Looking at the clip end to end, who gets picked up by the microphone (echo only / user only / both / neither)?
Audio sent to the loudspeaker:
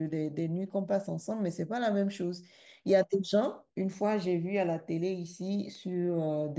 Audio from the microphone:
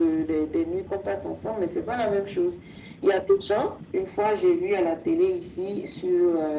echo only